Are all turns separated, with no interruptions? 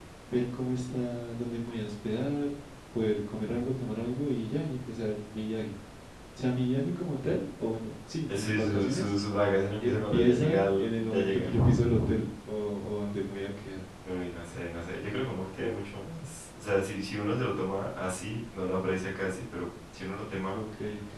No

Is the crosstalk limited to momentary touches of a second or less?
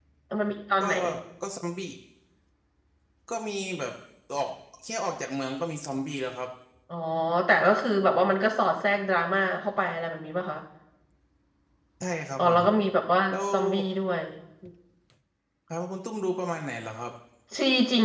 Yes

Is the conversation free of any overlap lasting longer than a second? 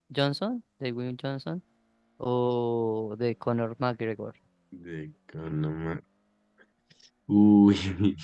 Yes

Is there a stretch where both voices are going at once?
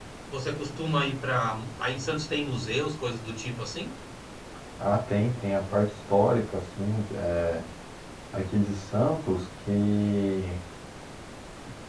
No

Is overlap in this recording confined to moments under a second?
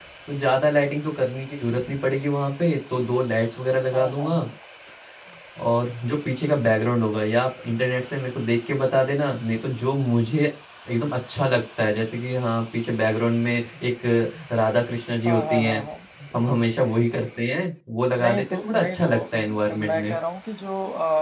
No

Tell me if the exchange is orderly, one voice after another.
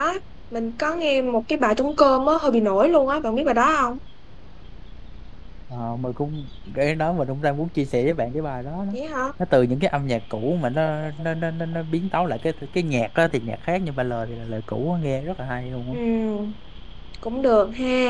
Yes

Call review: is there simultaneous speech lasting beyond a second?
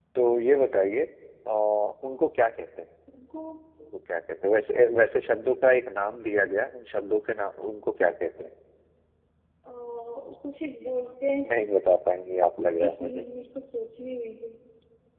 No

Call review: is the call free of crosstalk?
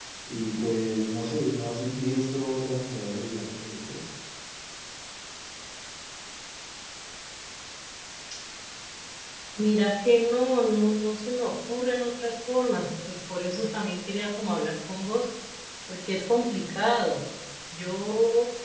Yes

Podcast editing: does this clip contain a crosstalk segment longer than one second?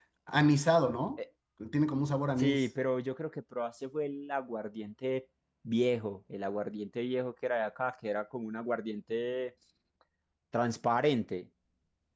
No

